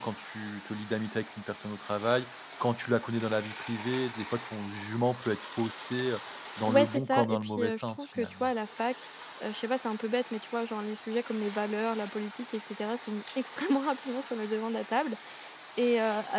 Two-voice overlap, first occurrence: 7 s

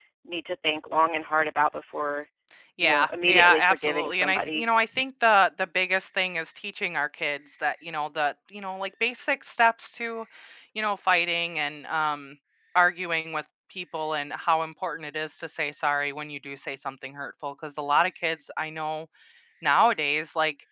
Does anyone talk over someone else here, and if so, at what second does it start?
3 s

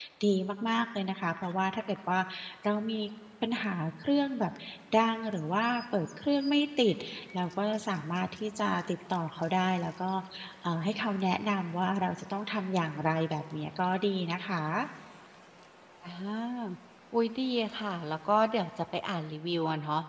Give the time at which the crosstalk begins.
none

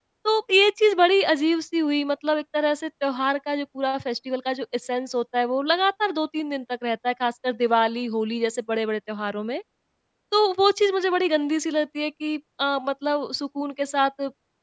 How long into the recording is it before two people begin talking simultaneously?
none

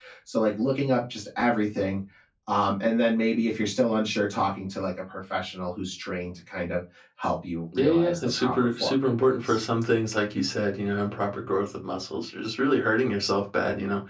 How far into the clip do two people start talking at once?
8 s

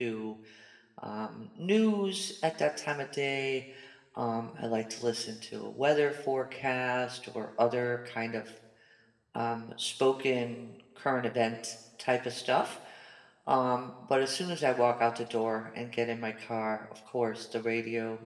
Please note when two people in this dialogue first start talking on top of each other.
none

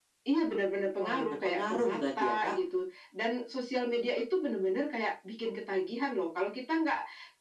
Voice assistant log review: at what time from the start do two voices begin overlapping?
1 s

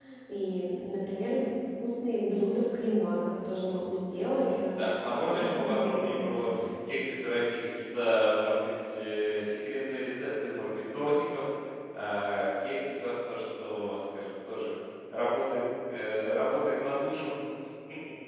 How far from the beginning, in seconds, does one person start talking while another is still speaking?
4 s

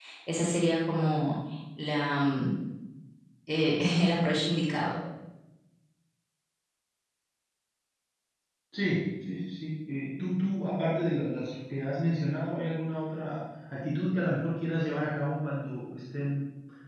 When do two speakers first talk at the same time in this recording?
none

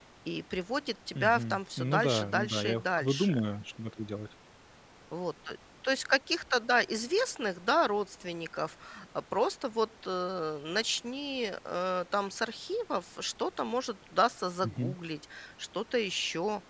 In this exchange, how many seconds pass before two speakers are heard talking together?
1 s

